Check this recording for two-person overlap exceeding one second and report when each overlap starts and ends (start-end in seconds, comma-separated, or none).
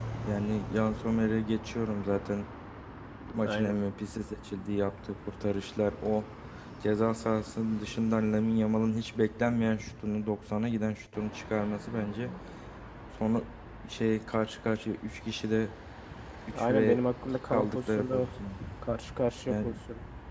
16.5-18.3